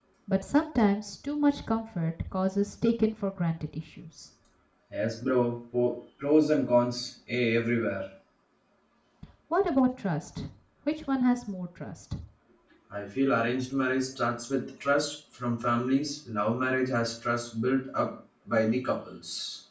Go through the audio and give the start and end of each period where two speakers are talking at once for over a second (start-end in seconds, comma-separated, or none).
none